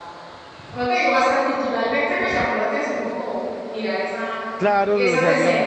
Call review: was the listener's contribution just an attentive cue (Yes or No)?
No